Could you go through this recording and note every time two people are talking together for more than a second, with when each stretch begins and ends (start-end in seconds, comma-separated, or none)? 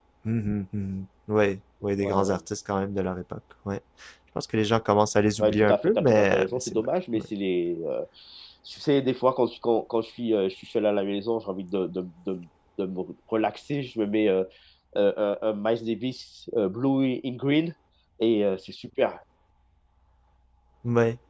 5.4-7.2